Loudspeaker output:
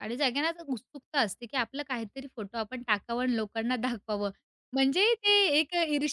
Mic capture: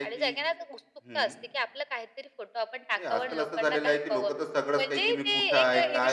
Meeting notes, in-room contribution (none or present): present